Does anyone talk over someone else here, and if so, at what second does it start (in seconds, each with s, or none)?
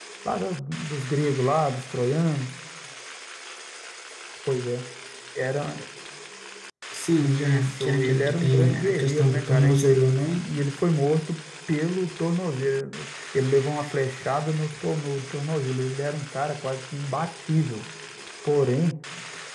7.2 s